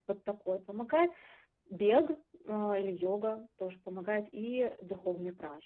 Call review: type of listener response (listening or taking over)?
taking over